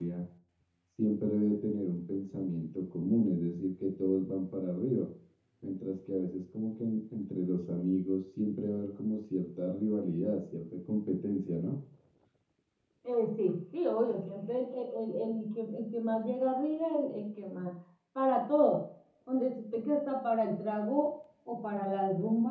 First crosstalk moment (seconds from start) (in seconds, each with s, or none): none